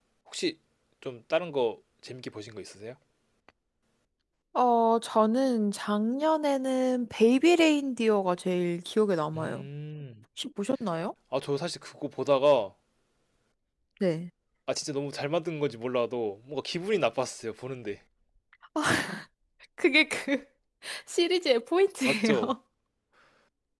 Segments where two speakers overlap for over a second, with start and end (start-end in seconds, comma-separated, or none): none